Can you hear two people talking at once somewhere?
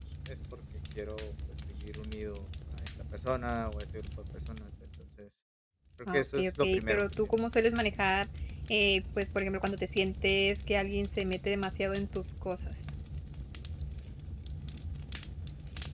Yes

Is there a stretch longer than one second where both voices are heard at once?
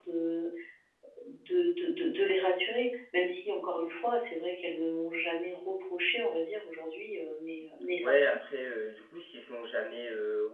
No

